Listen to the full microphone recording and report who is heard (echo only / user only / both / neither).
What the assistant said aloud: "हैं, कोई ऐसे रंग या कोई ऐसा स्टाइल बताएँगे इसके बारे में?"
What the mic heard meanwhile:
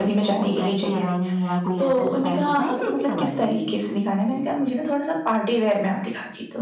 both